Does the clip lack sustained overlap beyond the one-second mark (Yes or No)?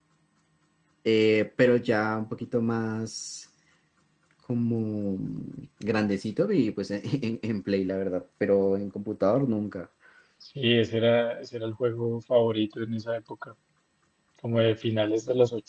Yes